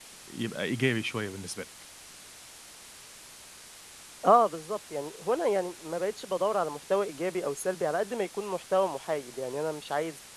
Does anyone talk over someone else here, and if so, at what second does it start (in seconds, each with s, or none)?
none